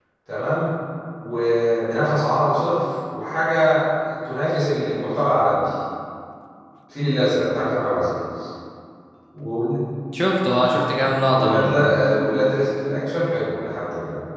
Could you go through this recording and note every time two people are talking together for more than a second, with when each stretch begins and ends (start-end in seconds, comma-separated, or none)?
none